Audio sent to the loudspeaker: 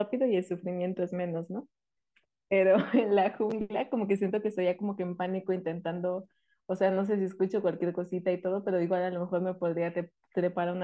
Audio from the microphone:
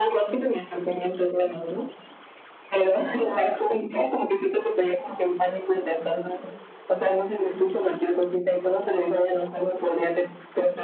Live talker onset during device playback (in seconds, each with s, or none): none